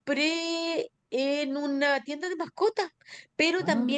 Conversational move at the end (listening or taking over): listening